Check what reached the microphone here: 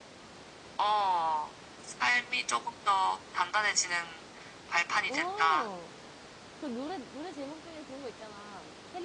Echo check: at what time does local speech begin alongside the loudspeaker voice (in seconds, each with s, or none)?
5.0 s